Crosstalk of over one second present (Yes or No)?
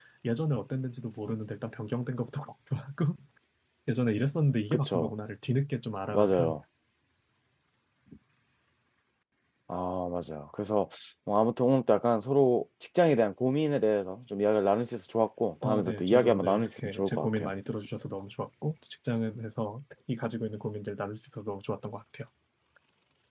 Yes